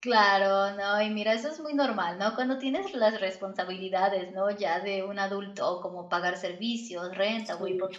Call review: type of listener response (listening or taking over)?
listening